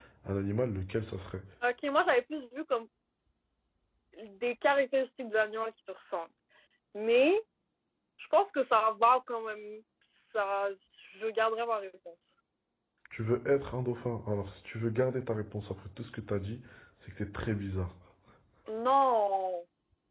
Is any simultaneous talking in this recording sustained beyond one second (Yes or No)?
No